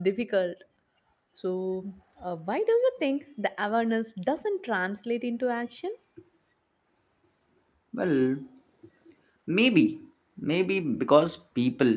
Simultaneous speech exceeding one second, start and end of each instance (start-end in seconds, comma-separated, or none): none